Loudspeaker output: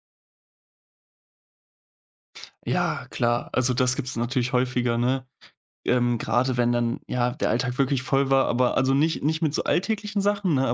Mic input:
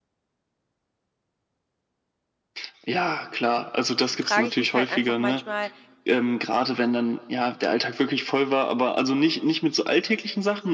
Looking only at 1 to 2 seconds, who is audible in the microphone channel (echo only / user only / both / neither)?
neither